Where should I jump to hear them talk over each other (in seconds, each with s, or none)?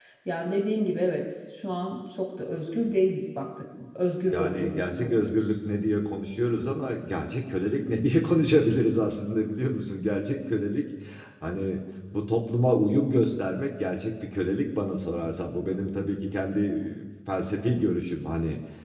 4.3 s